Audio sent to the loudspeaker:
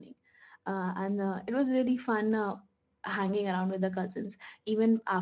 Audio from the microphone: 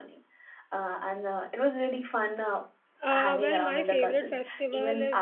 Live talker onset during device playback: 3.0 s

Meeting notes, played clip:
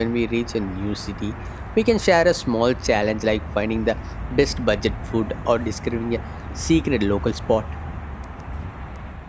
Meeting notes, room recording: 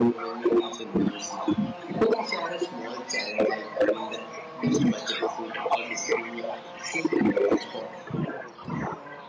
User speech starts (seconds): none

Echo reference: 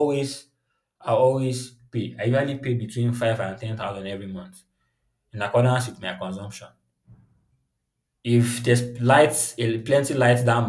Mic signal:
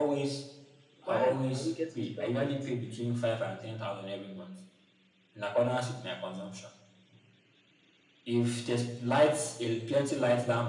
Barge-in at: 1.0 s

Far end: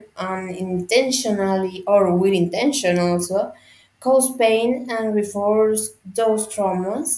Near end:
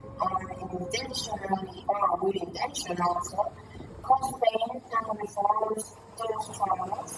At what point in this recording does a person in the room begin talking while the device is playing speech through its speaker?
none

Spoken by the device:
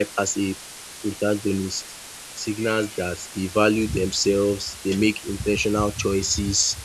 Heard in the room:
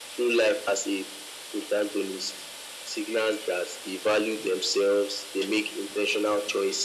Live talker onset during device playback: none

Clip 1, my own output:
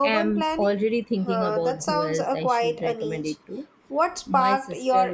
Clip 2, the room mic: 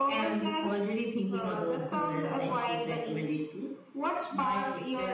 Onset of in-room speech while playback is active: none

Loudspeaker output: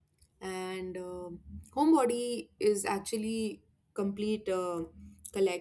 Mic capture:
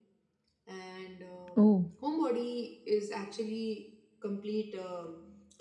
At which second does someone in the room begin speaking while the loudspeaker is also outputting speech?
1.6 s

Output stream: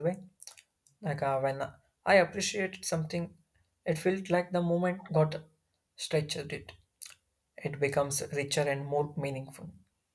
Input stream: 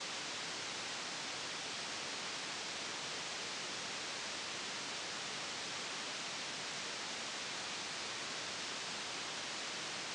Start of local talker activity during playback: none

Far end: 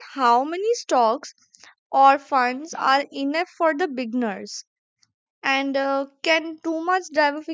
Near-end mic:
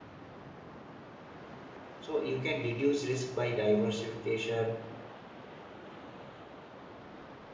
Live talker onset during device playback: 2.0 s

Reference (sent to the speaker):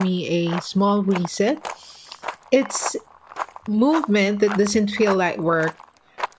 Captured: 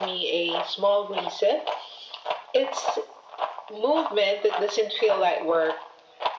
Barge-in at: none

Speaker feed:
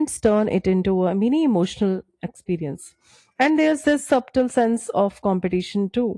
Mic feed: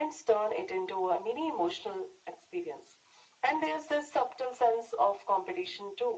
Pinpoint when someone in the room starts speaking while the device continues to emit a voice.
none

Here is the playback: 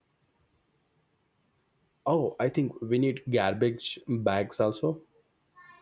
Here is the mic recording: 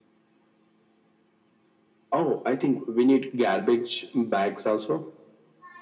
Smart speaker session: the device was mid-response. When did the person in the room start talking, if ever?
none

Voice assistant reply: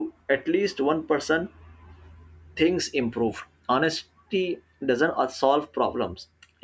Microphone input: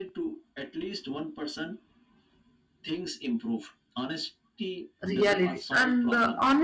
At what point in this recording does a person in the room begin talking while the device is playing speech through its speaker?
5.1 s

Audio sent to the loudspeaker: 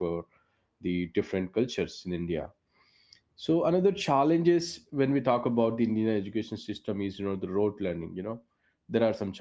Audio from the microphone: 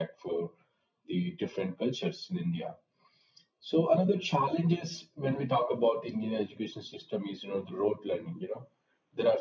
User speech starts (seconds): none

